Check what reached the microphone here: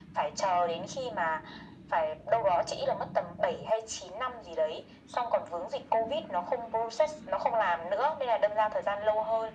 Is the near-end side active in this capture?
No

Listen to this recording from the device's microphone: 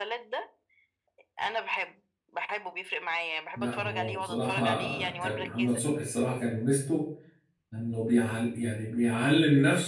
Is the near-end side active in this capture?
Yes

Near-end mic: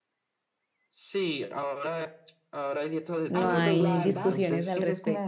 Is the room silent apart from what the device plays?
No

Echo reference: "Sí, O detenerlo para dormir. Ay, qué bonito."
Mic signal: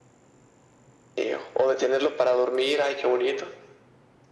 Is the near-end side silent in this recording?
Yes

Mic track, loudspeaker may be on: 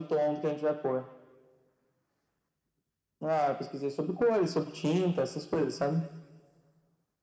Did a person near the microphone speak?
No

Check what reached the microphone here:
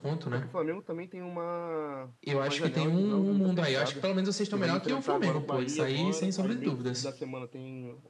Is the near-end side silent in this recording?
No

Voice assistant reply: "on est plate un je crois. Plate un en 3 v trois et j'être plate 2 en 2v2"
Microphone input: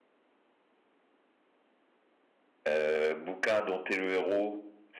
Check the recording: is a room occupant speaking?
Yes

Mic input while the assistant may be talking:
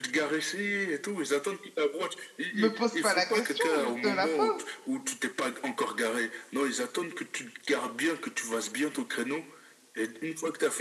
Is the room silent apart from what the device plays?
No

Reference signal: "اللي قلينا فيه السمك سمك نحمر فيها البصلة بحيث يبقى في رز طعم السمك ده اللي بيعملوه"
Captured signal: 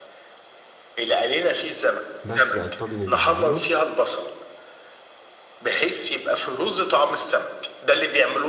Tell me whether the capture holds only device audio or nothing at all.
No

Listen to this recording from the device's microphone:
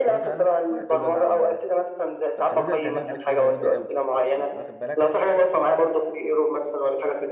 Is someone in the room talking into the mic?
Yes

